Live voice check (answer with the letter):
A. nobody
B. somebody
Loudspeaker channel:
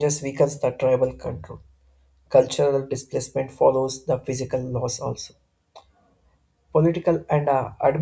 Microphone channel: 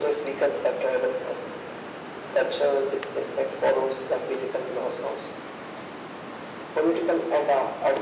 A